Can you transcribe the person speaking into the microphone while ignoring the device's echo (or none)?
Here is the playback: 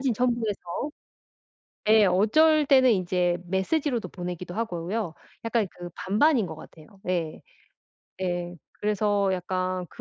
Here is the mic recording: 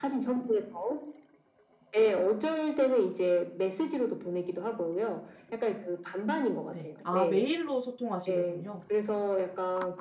네. 아 메일로 소통하시는군요.